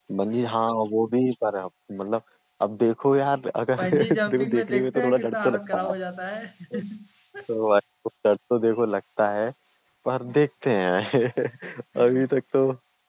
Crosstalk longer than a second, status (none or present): present